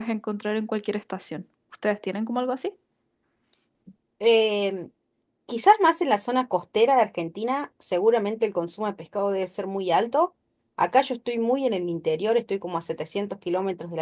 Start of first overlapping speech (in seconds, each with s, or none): none